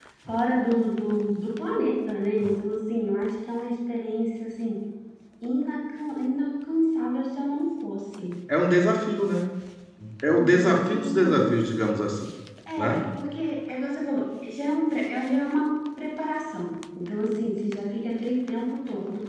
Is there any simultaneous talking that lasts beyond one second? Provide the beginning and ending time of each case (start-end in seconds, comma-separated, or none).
10.3-11.5